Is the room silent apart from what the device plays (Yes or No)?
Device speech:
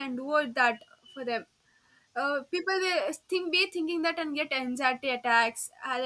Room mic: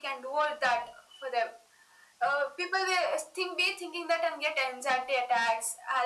Yes